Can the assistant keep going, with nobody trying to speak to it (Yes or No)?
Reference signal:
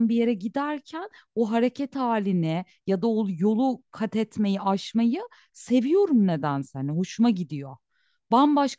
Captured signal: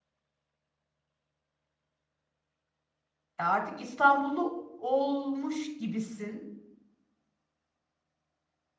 No